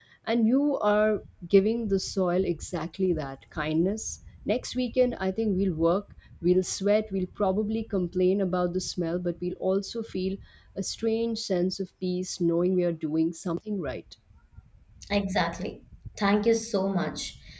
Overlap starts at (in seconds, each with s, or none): none